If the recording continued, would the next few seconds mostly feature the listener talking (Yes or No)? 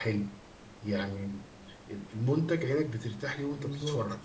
No